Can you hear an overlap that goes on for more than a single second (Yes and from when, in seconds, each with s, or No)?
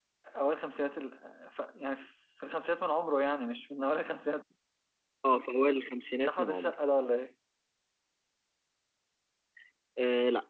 No